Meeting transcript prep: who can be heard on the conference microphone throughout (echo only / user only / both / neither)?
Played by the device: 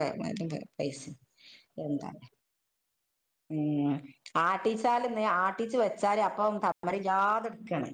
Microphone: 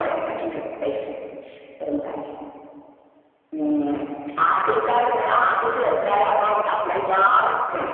echo only